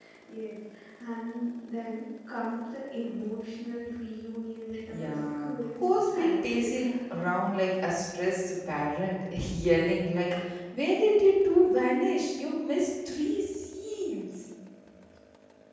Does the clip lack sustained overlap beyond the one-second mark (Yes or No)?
No